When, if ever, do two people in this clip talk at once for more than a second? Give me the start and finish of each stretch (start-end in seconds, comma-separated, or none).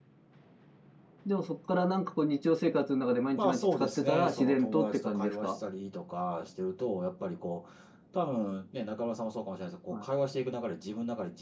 3.4-5.6